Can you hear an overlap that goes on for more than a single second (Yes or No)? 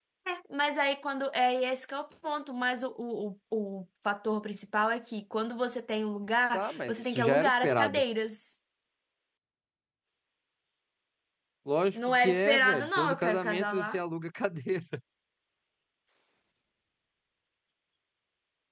Yes